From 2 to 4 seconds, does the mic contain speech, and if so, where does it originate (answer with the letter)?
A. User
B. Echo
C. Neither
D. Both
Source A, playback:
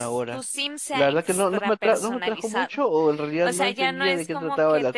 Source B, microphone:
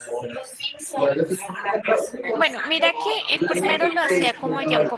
D